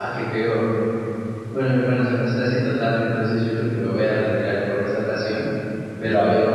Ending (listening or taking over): listening